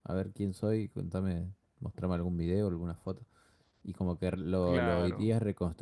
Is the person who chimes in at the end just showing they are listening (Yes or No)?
Yes